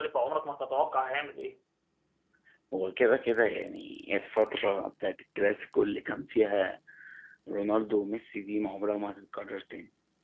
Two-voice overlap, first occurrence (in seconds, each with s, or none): none